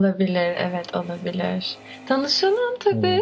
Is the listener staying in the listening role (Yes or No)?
Yes